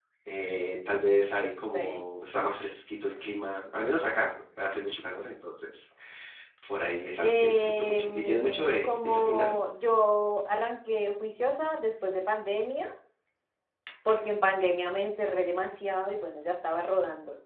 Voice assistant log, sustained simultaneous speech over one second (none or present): present